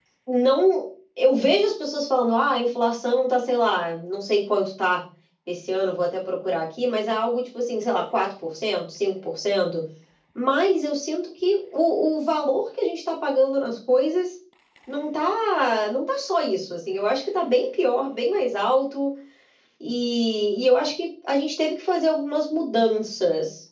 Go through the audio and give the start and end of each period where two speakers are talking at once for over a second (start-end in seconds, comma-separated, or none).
none